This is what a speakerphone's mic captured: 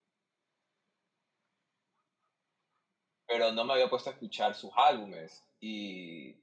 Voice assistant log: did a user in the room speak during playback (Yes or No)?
Yes